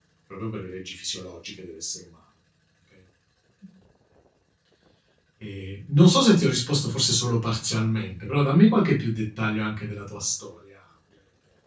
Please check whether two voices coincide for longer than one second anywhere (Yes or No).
No